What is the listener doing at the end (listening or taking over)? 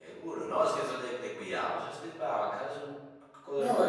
taking over